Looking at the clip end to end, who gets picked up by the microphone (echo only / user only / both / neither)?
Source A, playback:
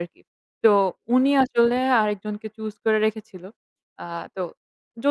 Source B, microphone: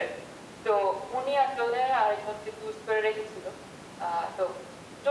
echo only